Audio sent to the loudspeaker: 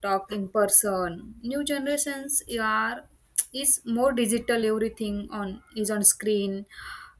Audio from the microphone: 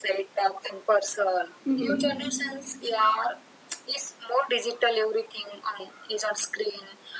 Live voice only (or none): hmm, hmm.